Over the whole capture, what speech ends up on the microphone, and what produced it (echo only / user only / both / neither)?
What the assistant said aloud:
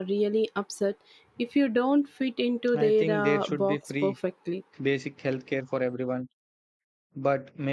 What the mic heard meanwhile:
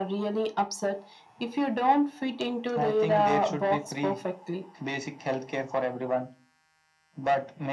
echo only